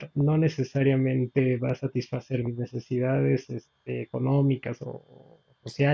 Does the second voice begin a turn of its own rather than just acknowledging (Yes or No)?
No